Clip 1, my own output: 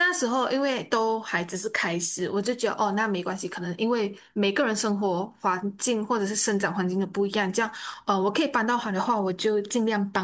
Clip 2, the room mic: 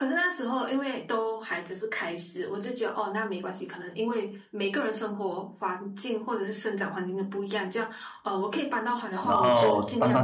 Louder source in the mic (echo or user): user